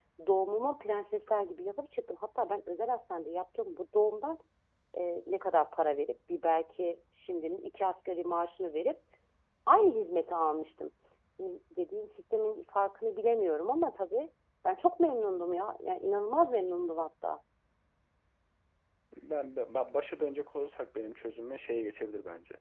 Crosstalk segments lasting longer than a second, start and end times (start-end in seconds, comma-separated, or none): none